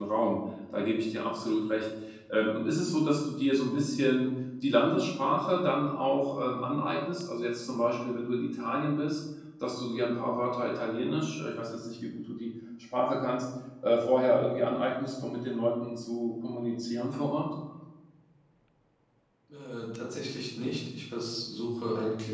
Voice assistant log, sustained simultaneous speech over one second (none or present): none